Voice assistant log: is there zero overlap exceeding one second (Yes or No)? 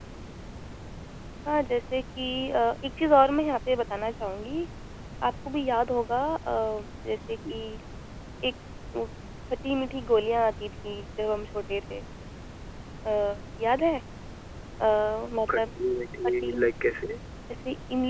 Yes